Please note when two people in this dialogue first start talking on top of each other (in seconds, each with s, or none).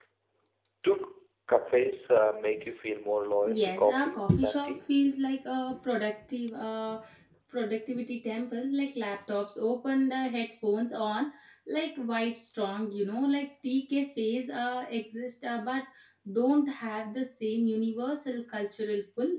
3.4 s